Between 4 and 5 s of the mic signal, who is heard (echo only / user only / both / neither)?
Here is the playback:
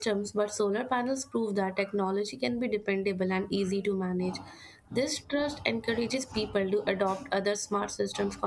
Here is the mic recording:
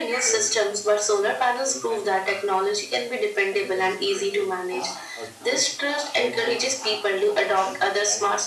both